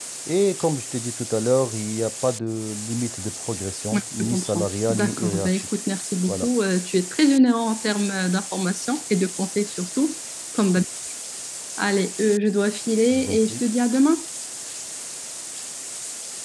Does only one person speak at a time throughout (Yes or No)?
No